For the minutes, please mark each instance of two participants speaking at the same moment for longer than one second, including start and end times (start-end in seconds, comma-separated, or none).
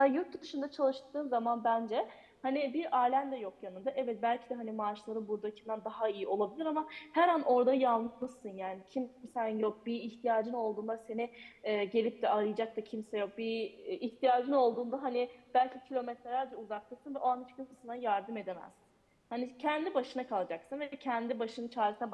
none